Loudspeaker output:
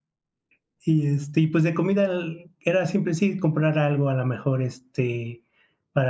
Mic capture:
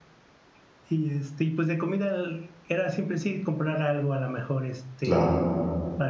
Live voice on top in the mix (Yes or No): Yes